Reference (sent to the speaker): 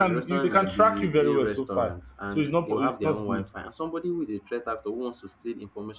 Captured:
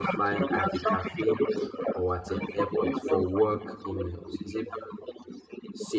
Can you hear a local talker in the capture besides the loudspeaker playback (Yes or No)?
Yes